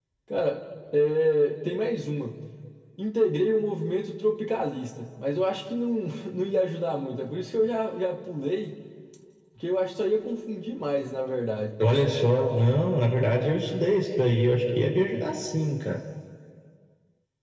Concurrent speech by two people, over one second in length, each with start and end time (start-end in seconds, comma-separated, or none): none